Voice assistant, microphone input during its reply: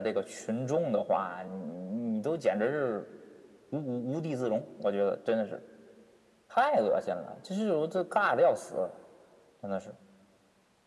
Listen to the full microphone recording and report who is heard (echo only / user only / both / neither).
echo only